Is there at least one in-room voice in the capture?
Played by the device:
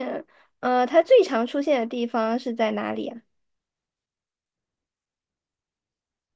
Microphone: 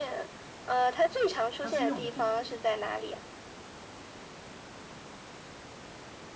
Yes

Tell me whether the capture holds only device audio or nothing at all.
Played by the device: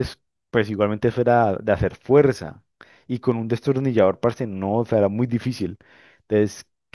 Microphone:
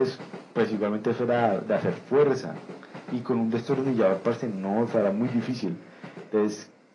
Yes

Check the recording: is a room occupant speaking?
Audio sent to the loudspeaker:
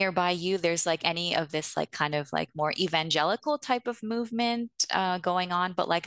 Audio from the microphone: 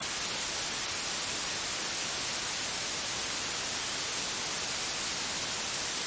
No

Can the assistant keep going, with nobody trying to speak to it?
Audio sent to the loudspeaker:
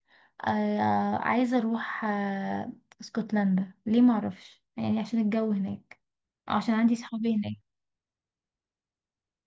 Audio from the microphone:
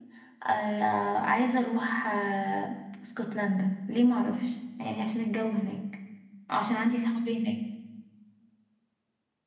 Yes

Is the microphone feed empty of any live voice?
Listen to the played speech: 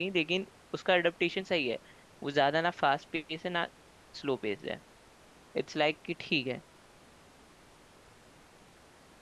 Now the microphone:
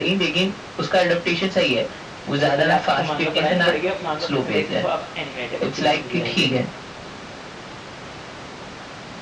No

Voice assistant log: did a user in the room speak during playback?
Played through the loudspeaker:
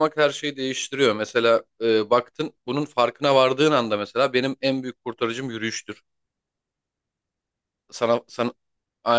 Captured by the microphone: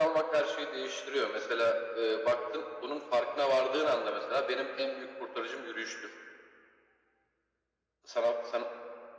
No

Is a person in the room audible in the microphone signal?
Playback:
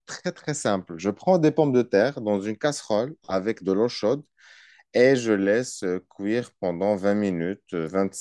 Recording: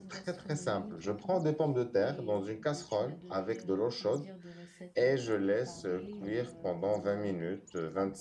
Yes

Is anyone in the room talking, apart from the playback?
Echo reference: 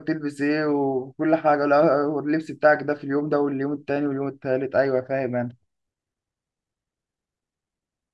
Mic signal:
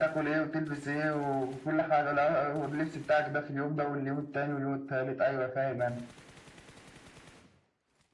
No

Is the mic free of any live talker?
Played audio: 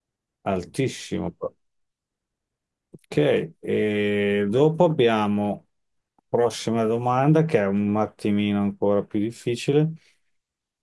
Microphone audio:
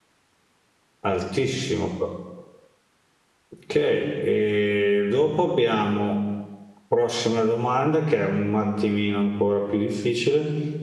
Yes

